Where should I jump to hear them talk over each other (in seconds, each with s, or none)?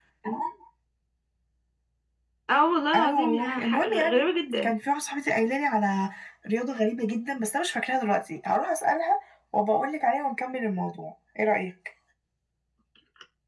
3.0 s